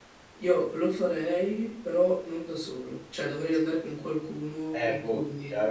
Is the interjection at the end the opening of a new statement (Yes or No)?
Yes